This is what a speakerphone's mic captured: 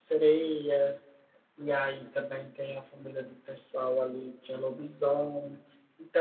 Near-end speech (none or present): present